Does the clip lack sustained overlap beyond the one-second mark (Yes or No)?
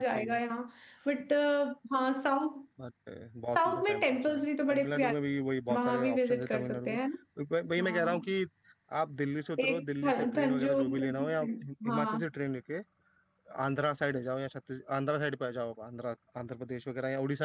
No